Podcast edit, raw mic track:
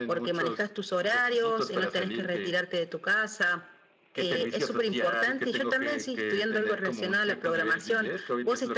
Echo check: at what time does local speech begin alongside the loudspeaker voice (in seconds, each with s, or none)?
none